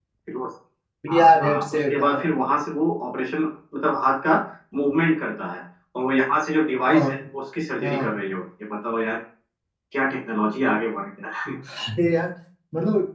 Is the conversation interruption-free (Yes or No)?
No